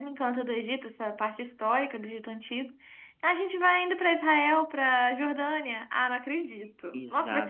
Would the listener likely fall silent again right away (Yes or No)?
No